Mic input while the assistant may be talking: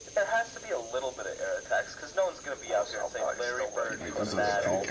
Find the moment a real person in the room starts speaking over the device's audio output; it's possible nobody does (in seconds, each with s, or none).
3.9 s